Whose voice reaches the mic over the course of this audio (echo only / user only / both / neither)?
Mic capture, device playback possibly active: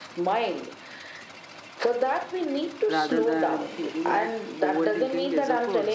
both